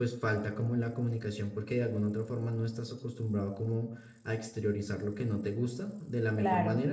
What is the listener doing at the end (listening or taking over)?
listening